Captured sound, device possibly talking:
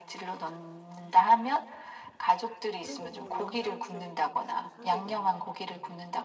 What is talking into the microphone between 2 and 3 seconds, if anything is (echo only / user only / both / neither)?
both